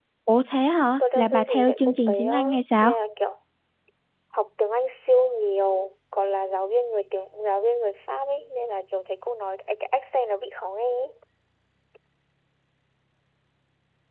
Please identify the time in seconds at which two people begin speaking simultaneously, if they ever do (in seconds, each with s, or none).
1.1 s